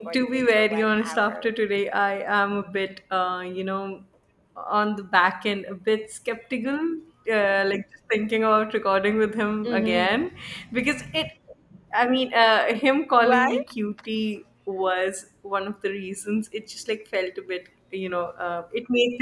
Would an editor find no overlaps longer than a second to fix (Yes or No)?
No